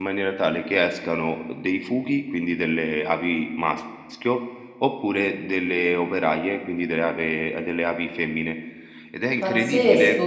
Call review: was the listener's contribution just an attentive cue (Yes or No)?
No